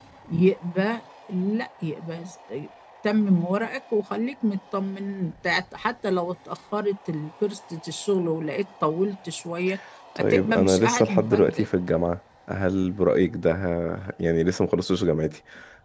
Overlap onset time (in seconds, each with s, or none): 10.2 s